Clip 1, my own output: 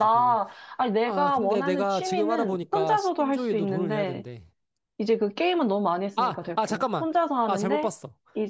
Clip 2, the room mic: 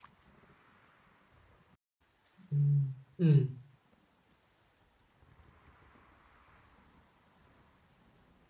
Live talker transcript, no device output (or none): 음, 음,